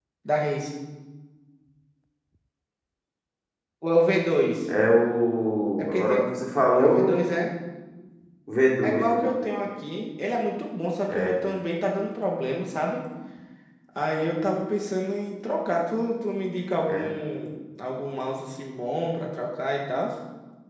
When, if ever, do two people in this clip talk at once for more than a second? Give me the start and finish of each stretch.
none

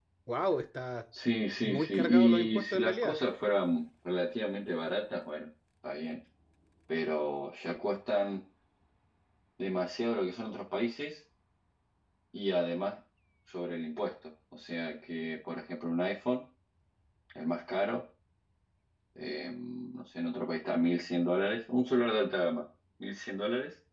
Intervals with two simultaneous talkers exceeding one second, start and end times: 1.6-3.2

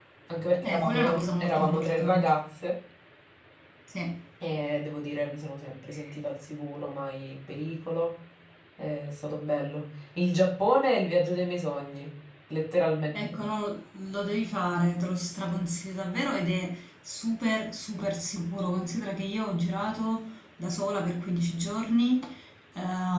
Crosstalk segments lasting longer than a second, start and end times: 0.6-2.3

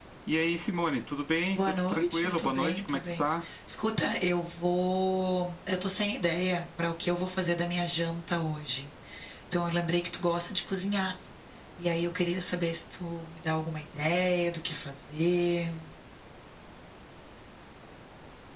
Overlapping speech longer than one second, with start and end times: 1.5-3.2

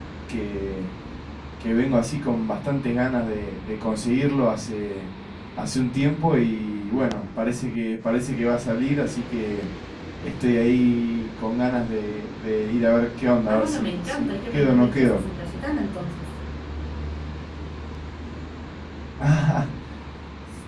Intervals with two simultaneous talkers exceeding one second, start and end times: 13.5-15.2

